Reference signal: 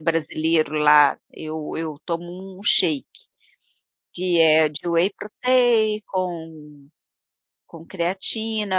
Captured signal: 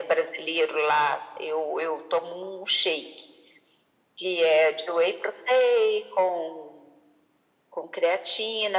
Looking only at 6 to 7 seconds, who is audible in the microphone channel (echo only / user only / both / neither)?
echo only